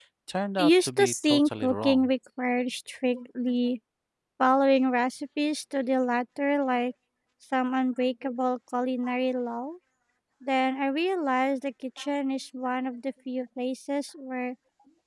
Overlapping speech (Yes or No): Yes